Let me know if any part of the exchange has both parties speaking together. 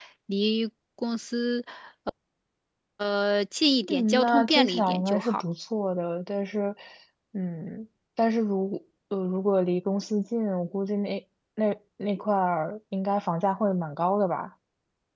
Yes, from 3.8 s

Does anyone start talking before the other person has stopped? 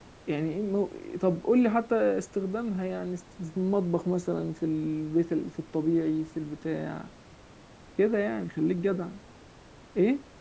No

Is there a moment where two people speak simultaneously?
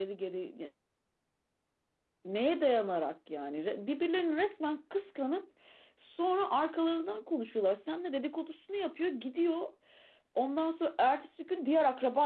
No

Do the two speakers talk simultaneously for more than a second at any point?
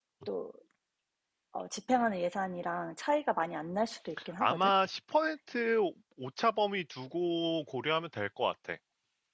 No

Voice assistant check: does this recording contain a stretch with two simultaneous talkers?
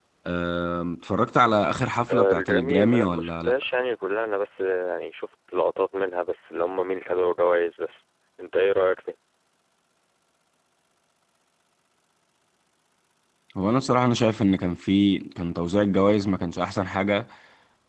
Yes, from 2.1 s

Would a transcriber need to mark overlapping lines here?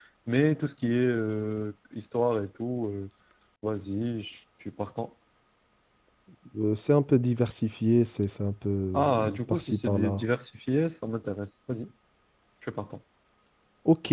Yes, from 8.9 s

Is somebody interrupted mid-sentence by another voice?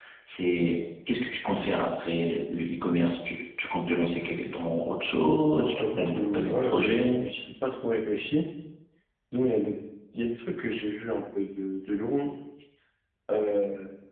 Yes, from 5.5 s

